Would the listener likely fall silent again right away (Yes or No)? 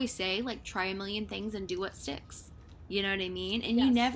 Yes